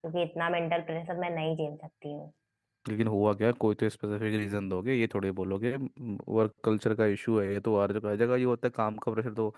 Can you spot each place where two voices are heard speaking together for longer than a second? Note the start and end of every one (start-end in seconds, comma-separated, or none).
none